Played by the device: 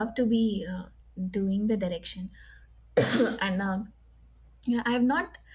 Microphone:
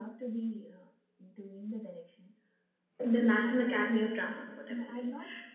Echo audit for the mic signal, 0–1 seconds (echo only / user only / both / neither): echo only